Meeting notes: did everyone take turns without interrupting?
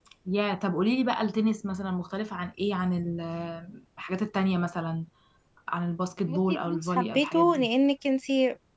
No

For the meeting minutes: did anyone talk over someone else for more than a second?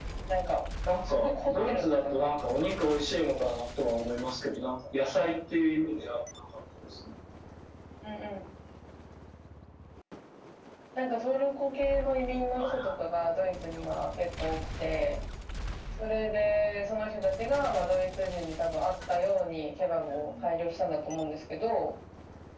Yes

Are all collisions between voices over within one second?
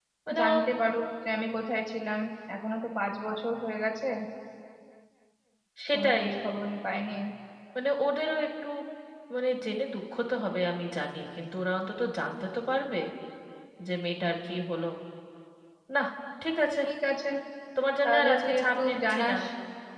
No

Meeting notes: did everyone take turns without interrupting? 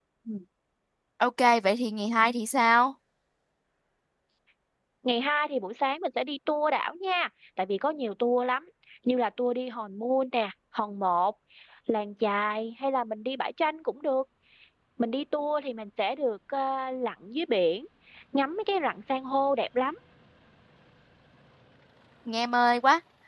Yes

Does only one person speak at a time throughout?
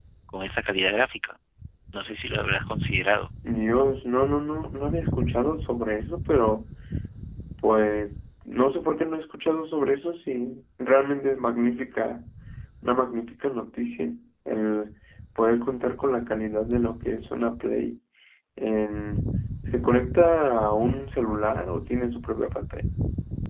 Yes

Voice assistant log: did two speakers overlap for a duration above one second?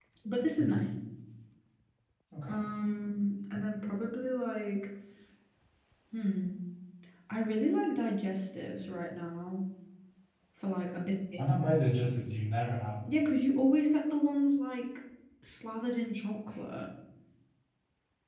No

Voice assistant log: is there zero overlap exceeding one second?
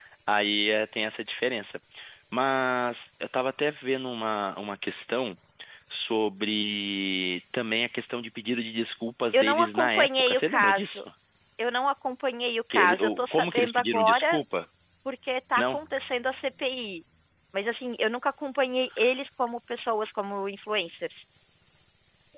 No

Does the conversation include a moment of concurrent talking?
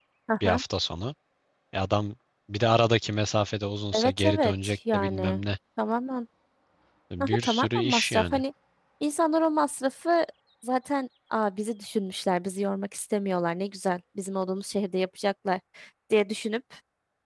Yes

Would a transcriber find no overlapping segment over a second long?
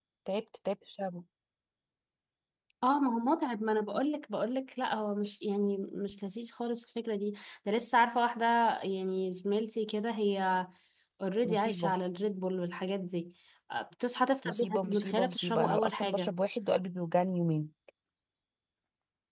No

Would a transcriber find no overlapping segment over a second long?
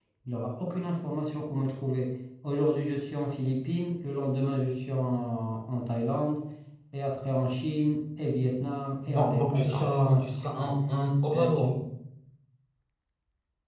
No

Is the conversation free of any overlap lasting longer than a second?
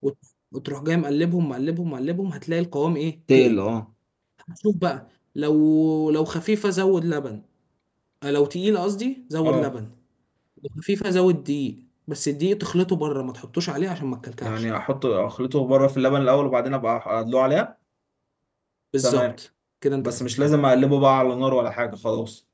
Yes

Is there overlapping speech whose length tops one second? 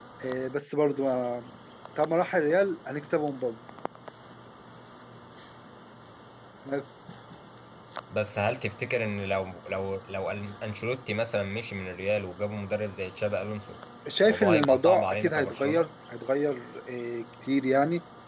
Yes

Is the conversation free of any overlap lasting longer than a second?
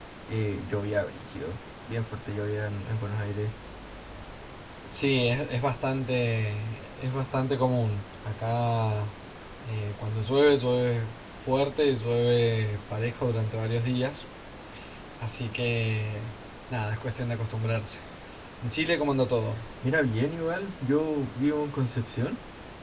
Yes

